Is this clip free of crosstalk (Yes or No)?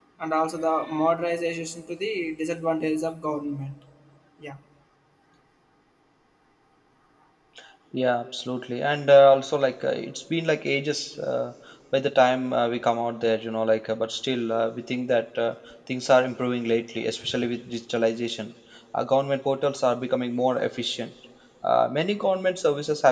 Yes